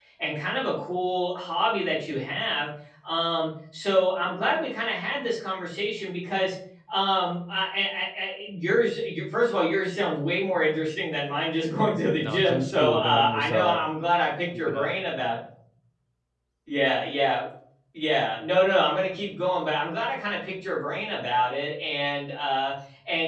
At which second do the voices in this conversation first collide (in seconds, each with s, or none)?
12.2 s